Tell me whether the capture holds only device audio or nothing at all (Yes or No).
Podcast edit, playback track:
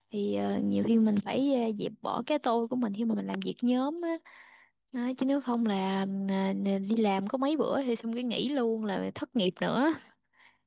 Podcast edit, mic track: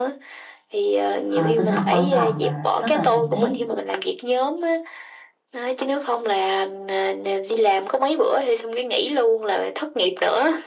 No